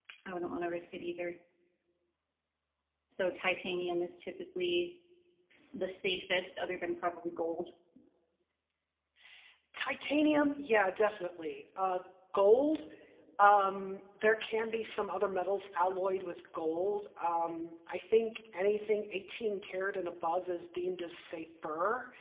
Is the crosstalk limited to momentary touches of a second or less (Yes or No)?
Yes